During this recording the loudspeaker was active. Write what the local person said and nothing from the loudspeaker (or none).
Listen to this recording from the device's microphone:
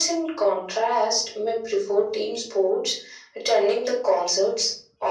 none